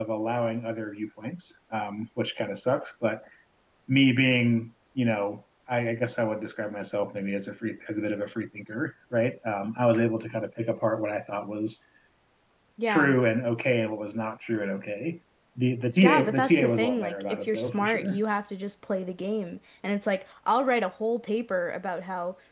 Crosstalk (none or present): present